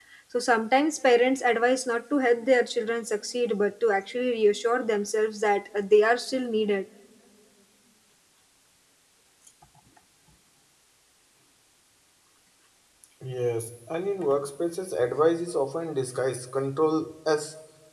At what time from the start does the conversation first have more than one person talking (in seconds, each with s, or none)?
none